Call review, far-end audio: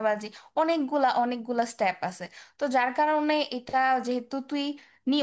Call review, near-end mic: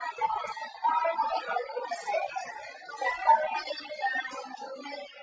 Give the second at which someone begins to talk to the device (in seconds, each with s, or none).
none